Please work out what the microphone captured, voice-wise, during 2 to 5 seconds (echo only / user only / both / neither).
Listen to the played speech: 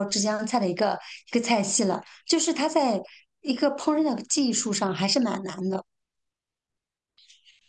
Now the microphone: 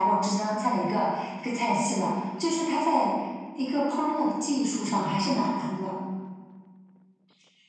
echo only